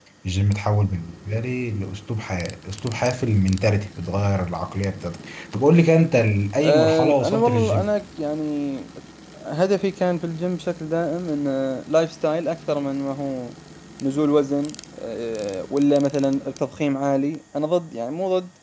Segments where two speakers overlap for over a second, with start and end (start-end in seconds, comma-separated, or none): 6.6-7.9